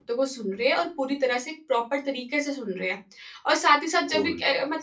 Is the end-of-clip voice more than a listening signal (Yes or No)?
No